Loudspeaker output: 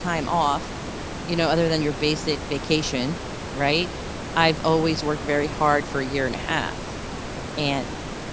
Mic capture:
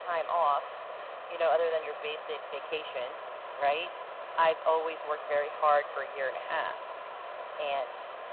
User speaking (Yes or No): No